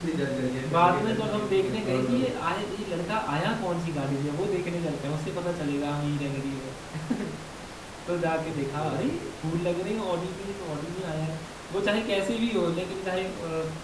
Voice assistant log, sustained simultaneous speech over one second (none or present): present